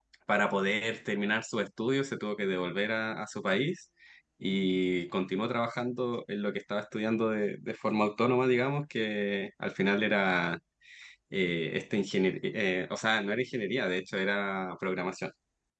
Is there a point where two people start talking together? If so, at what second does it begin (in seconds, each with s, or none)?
none